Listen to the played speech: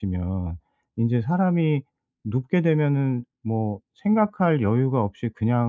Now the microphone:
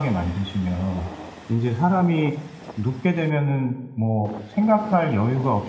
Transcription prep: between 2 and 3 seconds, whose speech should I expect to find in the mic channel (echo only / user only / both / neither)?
echo only